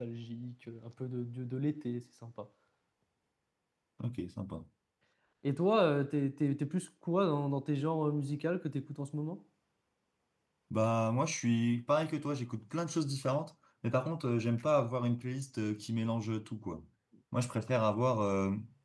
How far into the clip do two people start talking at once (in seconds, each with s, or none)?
none